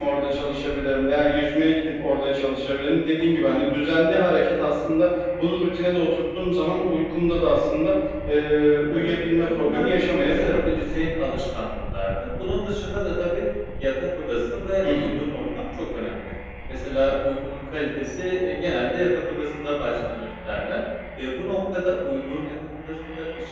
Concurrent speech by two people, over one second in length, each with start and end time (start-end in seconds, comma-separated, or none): 8.9-10.6